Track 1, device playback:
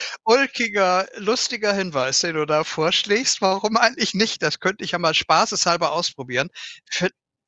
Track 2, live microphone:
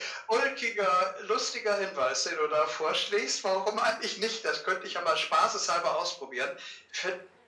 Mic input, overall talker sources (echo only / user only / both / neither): echo only